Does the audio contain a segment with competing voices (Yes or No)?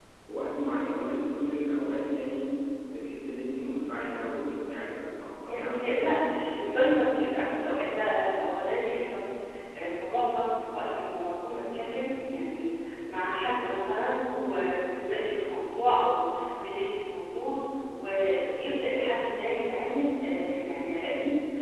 Yes